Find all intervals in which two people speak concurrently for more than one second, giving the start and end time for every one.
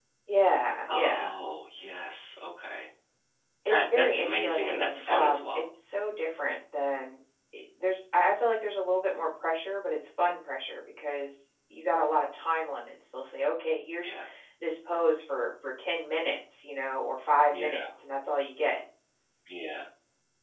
3.7-5.5

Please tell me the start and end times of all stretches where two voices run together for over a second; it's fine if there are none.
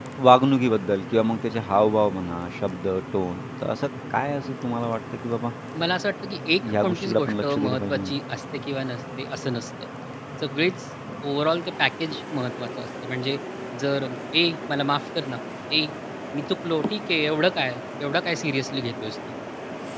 6.8-8.2

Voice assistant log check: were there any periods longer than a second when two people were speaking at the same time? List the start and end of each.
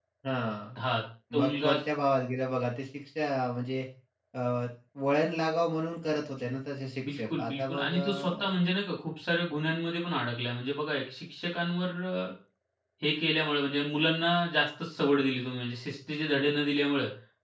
7.1-8.5

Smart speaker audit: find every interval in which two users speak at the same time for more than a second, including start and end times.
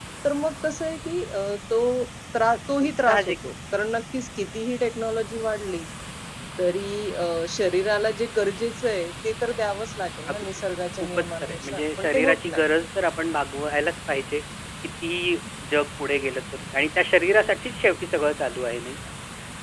11.0-12.6

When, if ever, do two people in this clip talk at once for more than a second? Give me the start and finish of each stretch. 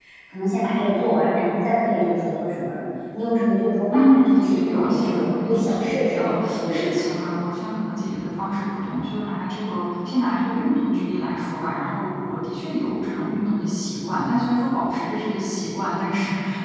3.9-7.2

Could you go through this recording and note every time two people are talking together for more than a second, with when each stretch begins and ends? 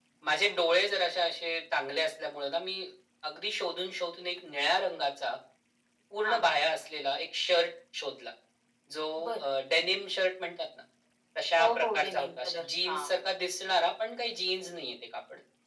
11.6-13.1

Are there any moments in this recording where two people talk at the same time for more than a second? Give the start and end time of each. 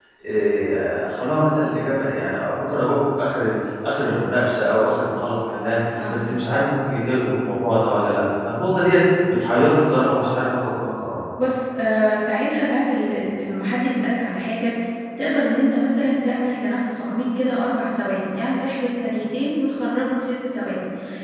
none

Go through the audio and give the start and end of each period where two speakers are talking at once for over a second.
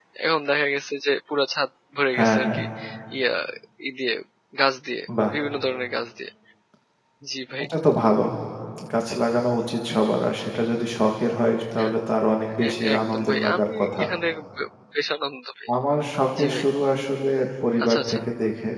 12.5-14.0

